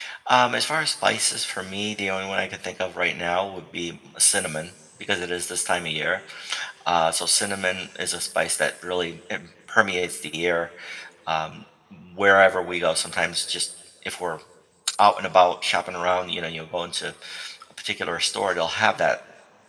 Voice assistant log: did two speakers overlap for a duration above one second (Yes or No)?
No